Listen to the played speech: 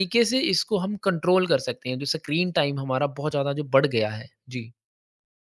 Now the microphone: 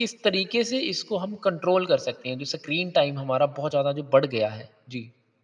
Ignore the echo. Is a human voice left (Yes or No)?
No